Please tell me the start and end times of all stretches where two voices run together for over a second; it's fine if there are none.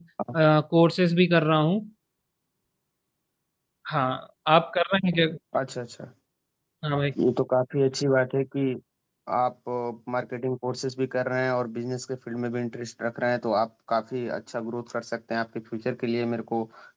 none

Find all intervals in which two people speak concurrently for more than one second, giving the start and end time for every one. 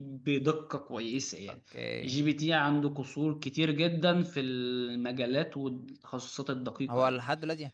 none

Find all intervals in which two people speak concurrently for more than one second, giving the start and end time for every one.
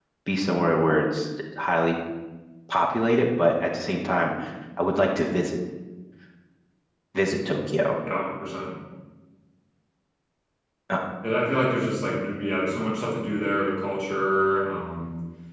none

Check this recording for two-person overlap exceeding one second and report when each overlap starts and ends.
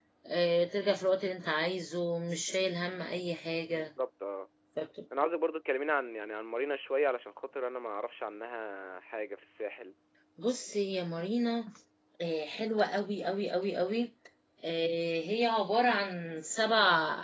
none

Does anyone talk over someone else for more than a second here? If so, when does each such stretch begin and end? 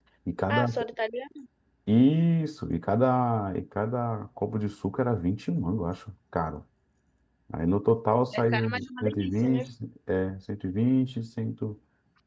8.4-9.6

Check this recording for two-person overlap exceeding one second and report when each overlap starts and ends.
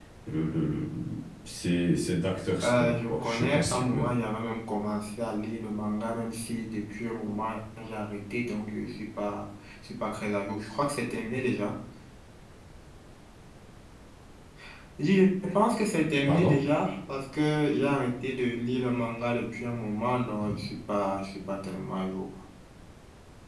2.6-4.1

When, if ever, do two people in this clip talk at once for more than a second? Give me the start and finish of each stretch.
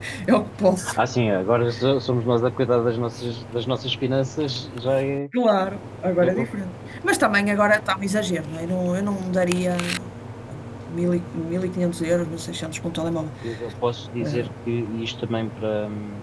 none

